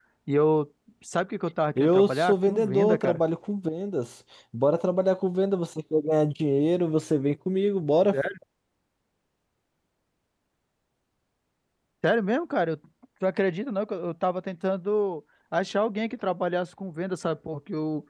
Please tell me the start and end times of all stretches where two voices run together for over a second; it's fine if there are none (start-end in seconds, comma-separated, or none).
1.8-3.2